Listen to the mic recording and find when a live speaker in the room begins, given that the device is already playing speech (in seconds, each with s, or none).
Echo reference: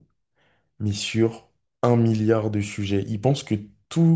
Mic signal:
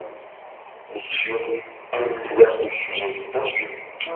none